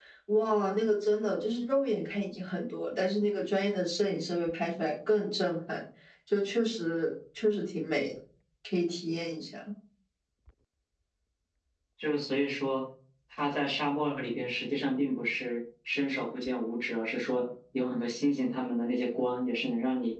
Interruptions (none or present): none